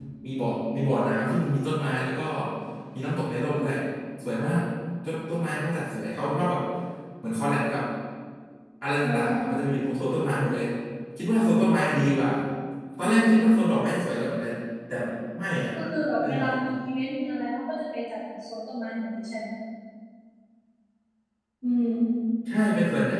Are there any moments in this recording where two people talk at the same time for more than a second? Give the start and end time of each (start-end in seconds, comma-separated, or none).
none